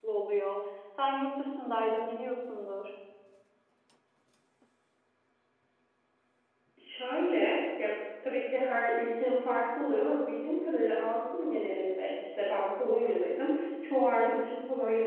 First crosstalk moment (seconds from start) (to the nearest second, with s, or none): none